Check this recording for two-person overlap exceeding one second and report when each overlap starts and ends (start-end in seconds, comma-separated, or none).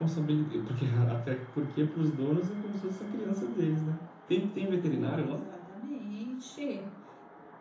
none